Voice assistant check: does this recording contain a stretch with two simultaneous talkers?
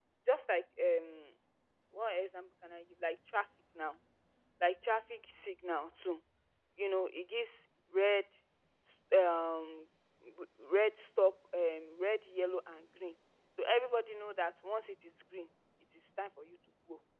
No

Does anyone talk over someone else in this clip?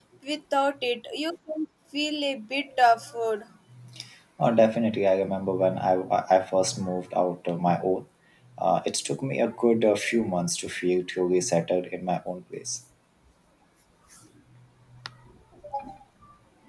No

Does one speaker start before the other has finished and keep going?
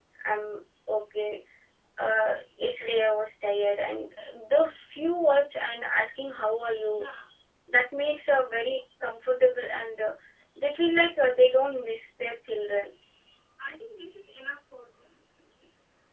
No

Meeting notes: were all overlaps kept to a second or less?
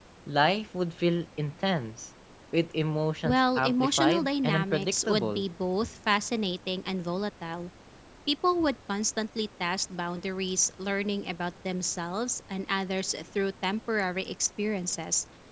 No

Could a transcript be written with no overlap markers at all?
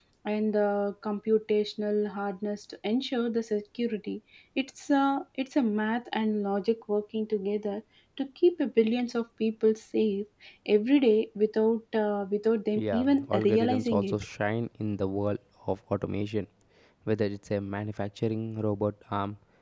No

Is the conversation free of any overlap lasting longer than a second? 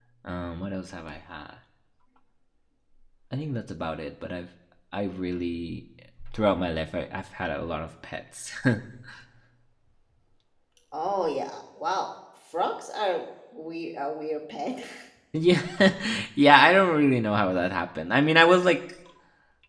Yes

